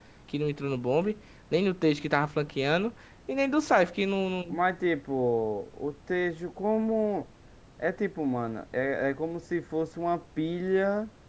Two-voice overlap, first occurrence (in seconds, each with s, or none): none